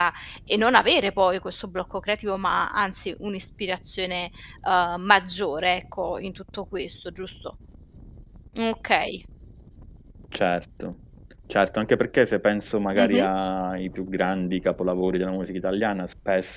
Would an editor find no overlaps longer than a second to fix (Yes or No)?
Yes